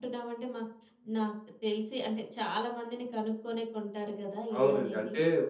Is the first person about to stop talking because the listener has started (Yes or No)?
Yes